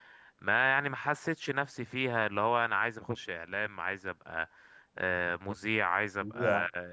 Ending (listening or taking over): listening